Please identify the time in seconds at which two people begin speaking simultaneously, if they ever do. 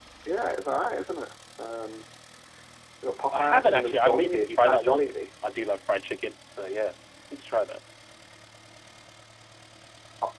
3.3 s

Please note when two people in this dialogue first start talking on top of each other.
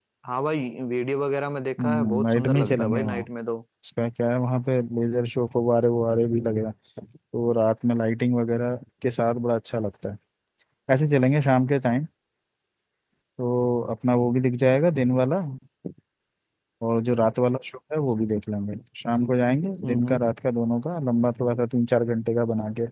1.8 s

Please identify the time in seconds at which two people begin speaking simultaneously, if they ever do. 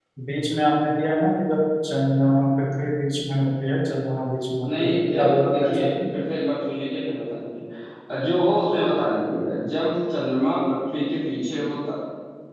4.7 s

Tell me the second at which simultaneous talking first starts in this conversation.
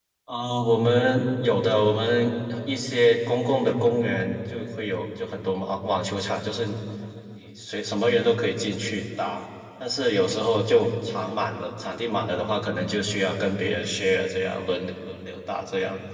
none

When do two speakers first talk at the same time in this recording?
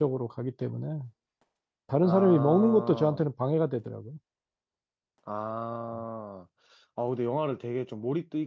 2.0 s

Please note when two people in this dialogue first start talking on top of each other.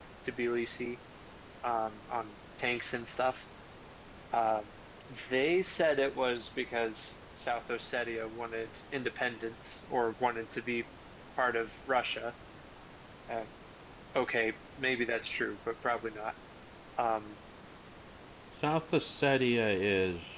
none

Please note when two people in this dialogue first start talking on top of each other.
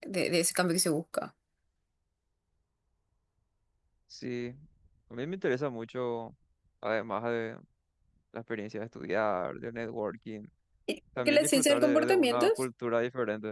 11.2 s

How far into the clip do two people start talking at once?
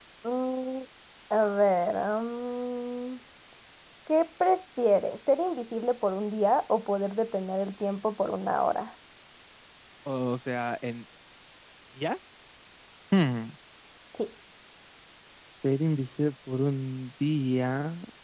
none

